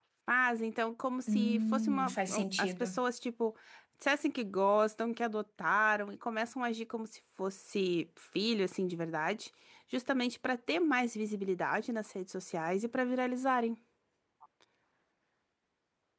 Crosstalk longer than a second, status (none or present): present